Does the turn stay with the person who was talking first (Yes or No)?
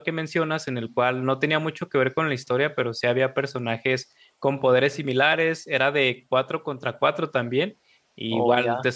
Yes